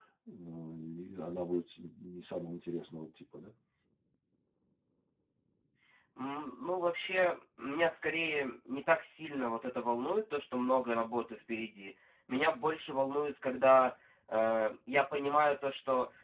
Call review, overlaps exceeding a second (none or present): none